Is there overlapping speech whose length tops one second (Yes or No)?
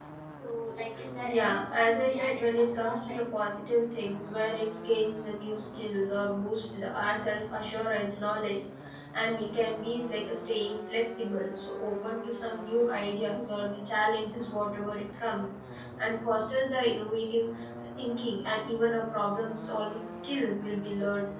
Yes